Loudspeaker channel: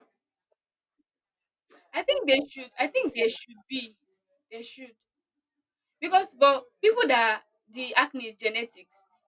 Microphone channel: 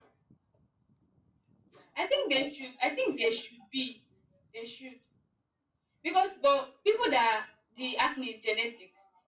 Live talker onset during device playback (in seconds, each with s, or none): none